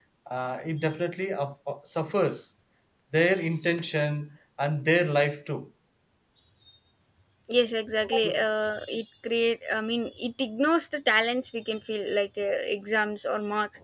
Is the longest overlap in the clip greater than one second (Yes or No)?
No